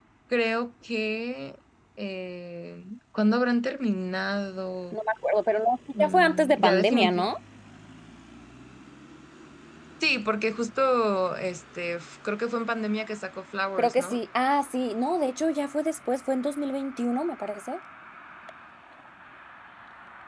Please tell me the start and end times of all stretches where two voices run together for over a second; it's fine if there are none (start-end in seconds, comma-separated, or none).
6.0-7.3